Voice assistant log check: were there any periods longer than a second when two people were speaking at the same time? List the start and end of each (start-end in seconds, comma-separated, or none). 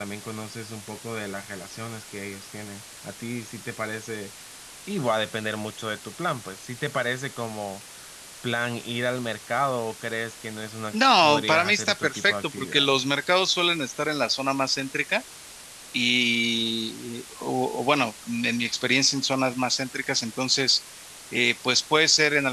10.9-12.9